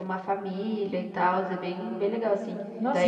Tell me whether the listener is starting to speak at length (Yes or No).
Yes